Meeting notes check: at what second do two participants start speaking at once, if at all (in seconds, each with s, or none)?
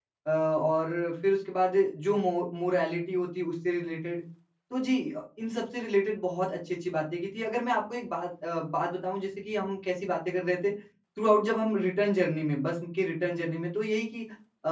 none